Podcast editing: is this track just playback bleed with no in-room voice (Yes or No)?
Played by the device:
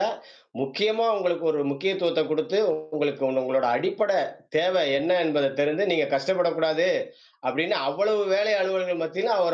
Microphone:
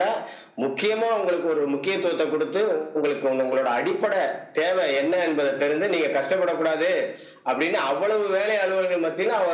Yes